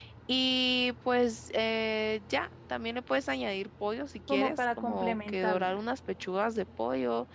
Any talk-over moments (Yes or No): Yes